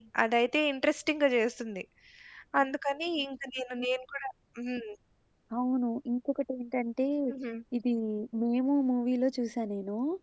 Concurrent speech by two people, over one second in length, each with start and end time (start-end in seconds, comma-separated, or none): none